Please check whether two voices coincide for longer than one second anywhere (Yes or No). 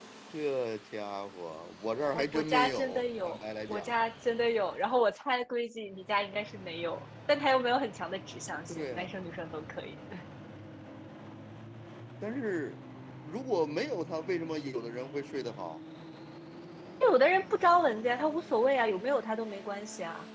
Yes